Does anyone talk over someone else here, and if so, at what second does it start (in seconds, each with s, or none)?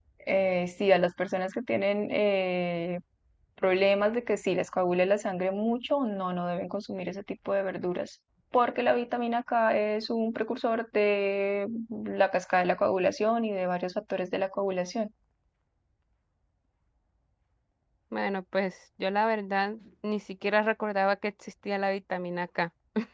none